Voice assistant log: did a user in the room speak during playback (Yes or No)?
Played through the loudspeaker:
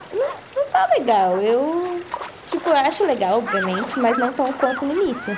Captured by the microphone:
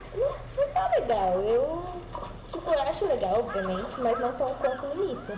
No